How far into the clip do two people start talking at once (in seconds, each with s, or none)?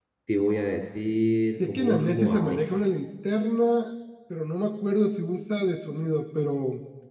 1.6 s